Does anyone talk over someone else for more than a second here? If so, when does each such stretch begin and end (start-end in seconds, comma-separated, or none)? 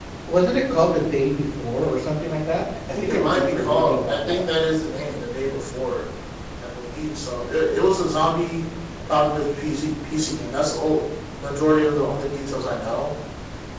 3.0-4.4